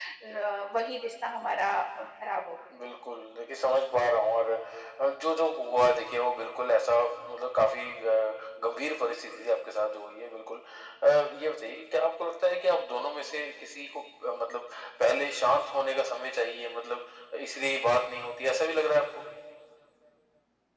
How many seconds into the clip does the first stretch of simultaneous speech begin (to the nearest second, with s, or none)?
none